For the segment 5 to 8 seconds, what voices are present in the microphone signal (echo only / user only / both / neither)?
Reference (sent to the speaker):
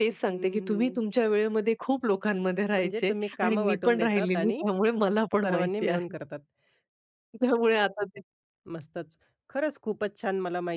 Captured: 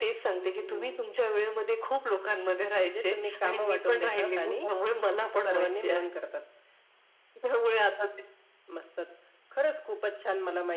echo only